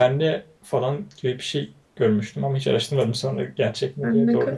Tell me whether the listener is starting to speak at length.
Yes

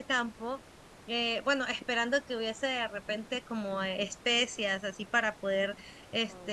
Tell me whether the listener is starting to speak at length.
No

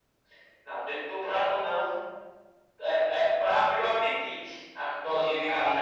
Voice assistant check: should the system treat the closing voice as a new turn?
Yes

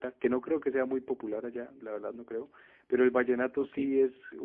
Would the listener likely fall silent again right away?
Yes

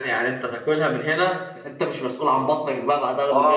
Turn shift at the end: Yes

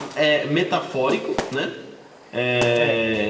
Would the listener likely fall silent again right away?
Yes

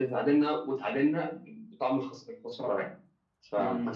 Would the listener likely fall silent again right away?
No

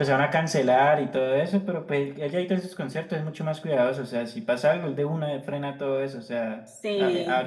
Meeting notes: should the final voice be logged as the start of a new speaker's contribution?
No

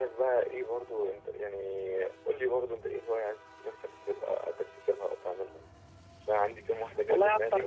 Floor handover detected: Yes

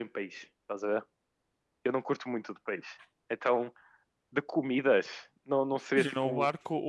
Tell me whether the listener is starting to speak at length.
Yes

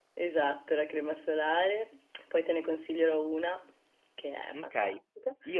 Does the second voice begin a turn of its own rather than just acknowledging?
Yes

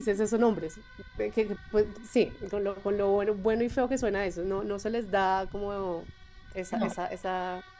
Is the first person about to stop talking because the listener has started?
No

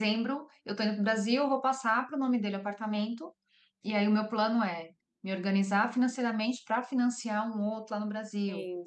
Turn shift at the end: No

